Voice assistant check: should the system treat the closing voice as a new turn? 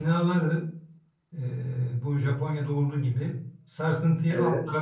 No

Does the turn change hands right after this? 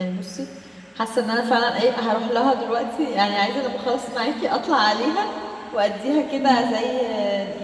No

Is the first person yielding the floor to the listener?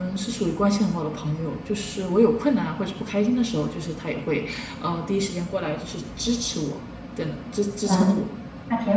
Yes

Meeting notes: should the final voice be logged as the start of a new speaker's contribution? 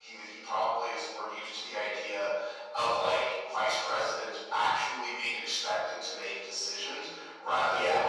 No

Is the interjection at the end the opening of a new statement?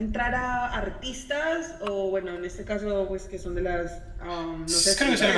Yes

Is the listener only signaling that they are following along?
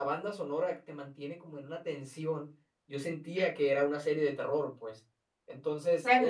No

